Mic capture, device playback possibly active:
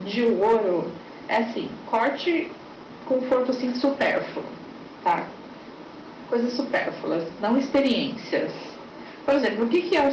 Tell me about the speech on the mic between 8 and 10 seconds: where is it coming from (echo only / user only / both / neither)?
echo only